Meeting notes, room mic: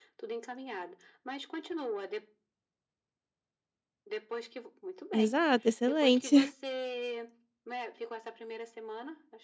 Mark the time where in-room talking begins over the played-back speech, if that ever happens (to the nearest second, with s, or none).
5 s